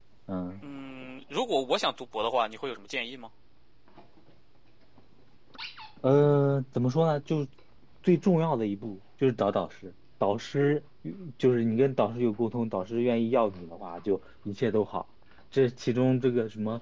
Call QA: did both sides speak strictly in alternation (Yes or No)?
Yes